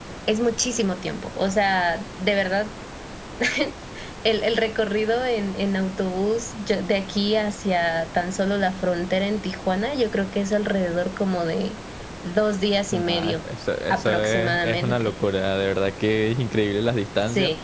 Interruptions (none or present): present